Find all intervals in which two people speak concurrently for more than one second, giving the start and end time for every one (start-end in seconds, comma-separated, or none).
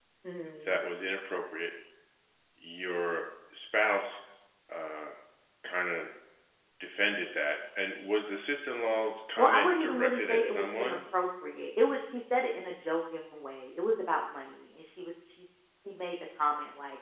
9.4-11.0